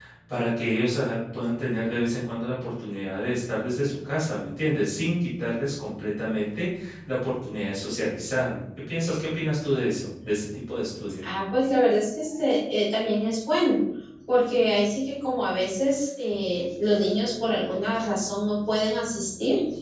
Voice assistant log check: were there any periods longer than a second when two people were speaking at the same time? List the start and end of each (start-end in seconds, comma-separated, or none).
none